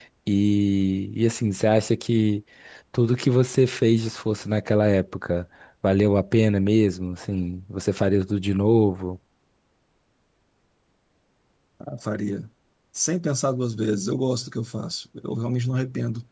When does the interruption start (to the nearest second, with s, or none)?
none